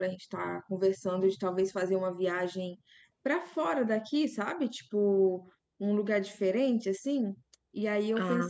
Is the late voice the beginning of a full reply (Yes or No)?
No